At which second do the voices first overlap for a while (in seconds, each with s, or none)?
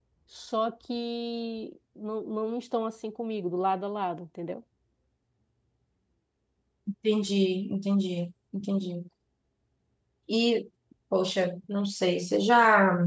none